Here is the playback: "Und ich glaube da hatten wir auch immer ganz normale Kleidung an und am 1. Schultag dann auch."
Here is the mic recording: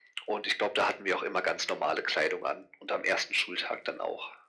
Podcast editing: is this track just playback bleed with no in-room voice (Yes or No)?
Yes